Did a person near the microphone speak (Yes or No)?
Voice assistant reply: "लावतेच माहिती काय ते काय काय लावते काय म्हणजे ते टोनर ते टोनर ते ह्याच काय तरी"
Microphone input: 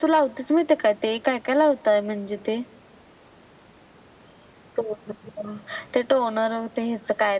No